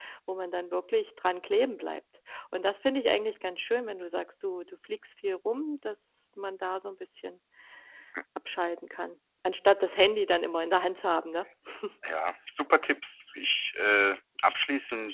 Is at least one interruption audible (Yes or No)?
No